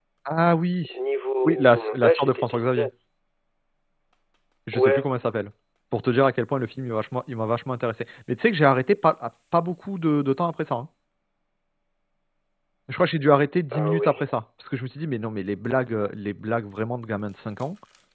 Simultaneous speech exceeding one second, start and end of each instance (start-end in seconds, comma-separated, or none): 1.4-2.9